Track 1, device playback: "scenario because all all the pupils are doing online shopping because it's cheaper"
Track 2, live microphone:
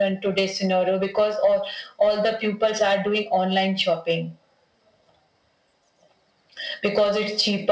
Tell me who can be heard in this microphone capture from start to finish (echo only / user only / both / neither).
echo only